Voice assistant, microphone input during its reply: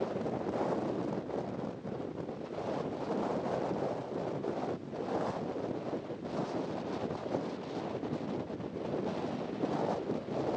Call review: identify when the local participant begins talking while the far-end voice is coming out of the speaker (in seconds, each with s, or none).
none